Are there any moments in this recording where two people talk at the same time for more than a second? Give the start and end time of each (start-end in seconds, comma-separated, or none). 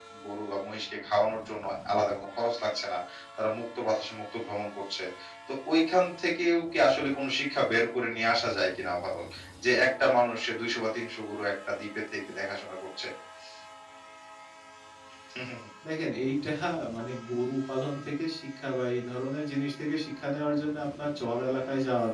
none